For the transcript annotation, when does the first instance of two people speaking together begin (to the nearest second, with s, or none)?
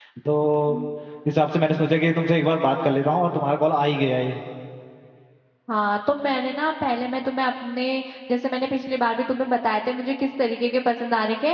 none